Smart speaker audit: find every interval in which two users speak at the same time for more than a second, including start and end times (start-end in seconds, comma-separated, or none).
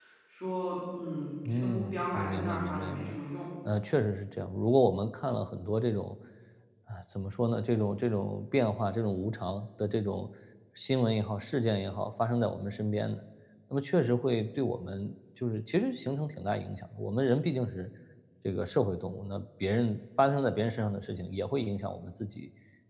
1.4-3.2